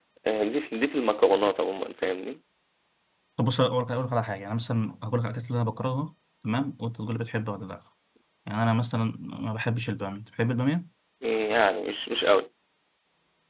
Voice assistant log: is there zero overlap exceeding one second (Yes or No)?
Yes